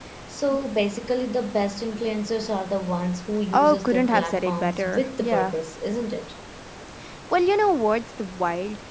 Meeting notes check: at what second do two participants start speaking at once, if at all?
3.5 s

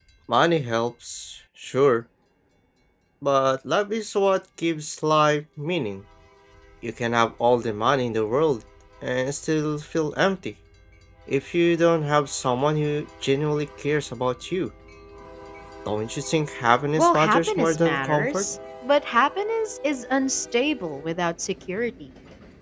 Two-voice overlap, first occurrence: 17.0 s

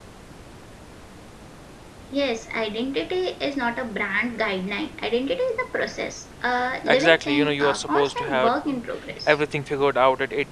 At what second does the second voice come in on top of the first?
6.9 s

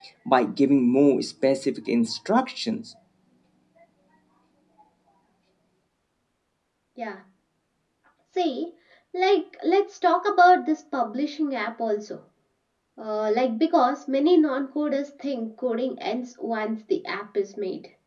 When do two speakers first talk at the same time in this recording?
none

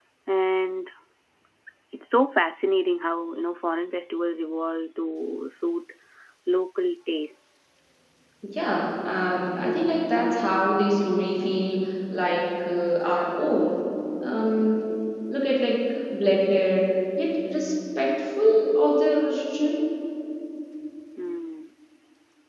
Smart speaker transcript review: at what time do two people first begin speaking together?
none

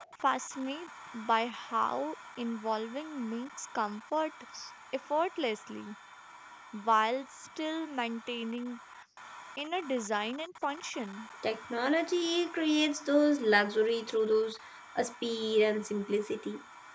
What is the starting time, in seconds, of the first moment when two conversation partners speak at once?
none

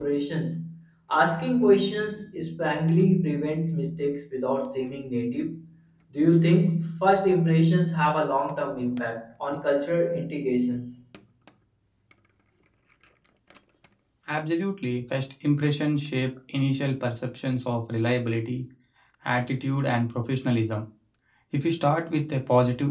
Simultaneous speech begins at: none

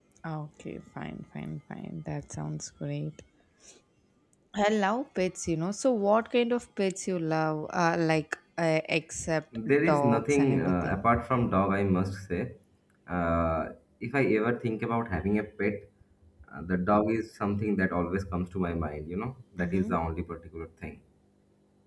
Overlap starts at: 9.7 s

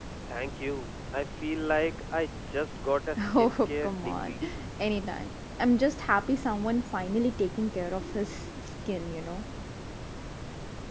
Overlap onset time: 3.2 s

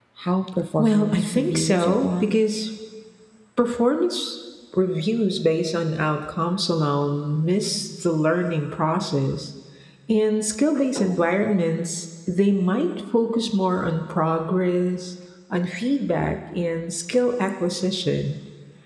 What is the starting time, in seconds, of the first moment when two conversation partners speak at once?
0.8 s

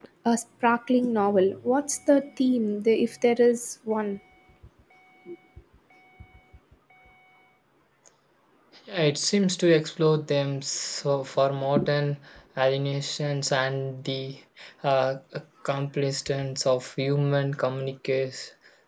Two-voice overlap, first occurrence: none

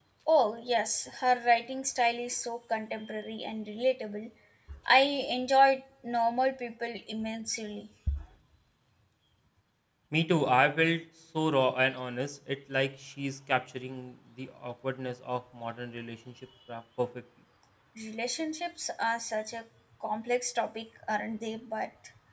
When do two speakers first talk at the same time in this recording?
none

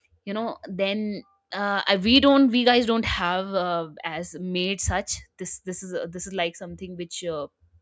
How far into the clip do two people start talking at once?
none

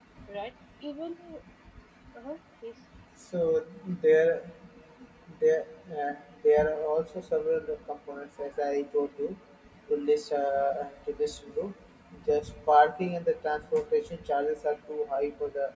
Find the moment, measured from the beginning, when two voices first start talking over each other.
none

